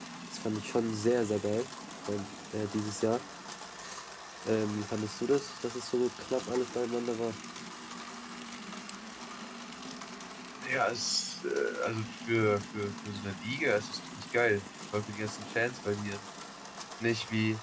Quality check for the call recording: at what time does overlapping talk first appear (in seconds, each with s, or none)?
none